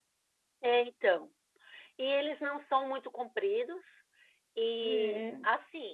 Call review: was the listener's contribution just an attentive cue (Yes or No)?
Yes